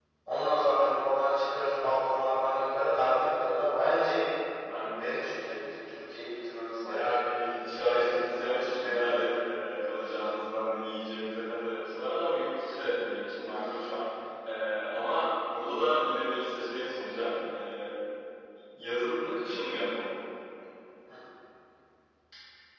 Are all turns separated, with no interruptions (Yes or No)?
No